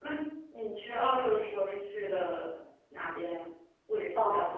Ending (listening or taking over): taking over